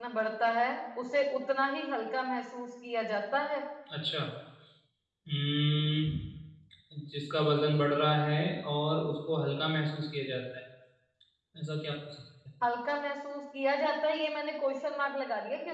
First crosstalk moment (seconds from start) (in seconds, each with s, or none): none